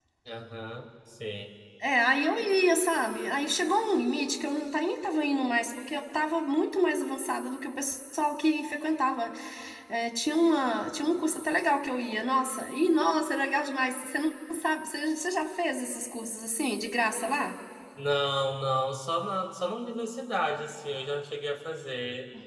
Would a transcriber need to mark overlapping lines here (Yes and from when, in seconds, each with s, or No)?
No